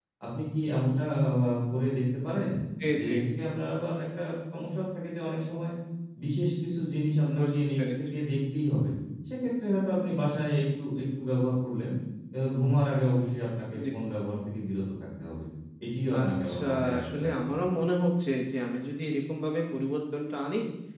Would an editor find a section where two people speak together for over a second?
Yes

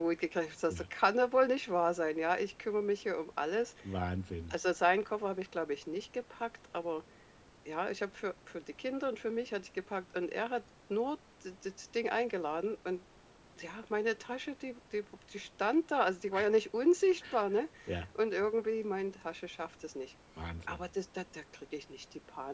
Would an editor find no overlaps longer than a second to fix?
Yes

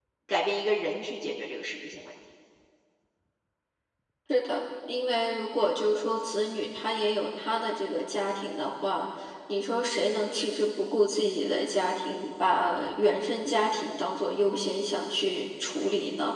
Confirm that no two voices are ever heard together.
Yes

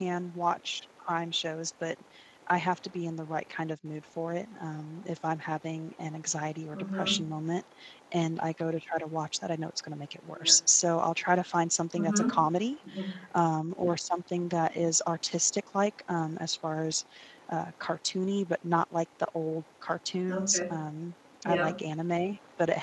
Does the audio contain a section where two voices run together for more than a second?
No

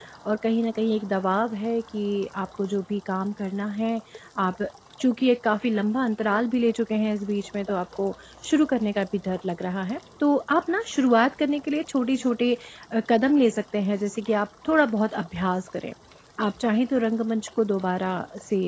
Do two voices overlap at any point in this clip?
No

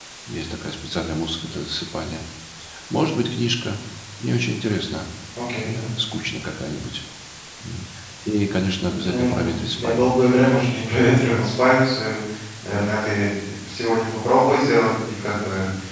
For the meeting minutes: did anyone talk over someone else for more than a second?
Yes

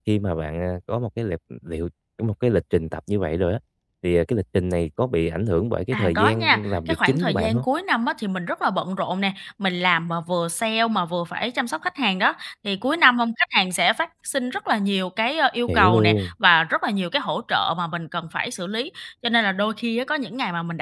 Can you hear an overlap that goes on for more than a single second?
Yes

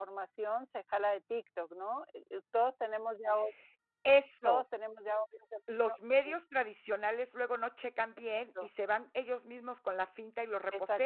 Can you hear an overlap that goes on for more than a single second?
No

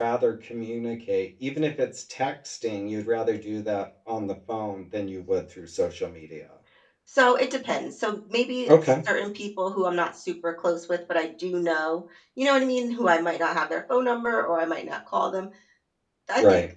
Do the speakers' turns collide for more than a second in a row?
No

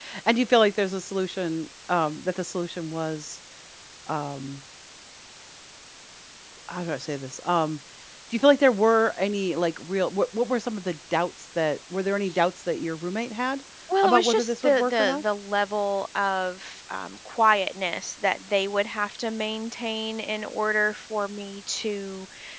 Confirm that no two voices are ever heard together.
No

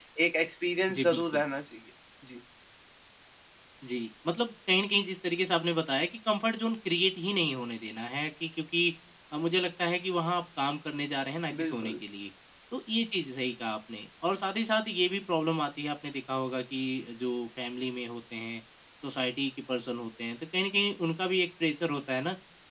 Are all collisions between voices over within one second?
Yes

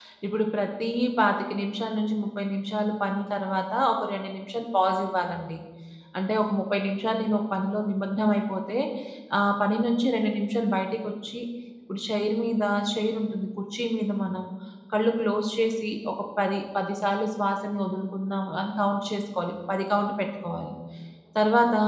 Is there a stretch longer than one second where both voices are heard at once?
No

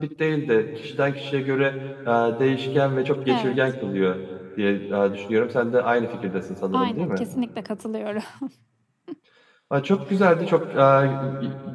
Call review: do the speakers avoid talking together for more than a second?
Yes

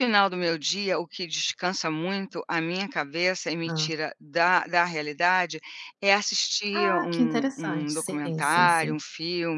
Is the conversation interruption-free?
No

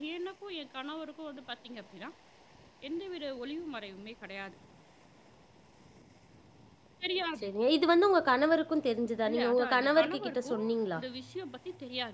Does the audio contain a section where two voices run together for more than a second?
Yes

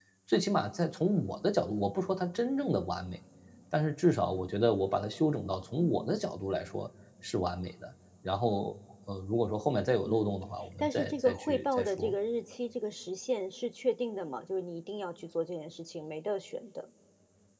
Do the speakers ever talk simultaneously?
Yes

